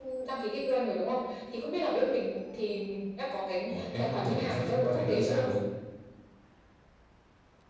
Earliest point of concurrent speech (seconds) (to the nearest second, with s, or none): 4 s